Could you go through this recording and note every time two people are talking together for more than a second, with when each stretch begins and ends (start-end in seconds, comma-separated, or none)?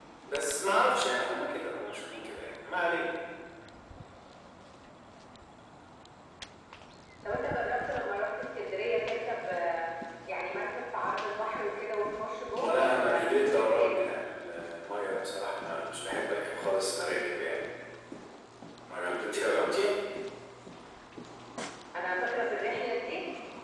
12.6-13.9